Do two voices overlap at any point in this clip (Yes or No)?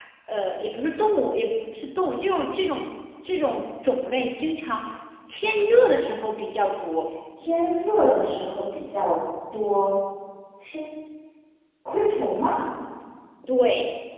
No